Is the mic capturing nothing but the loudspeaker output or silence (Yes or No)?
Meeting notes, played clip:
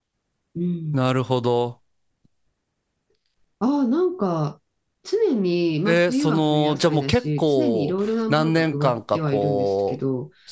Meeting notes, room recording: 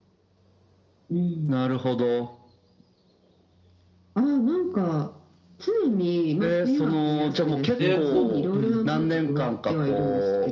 No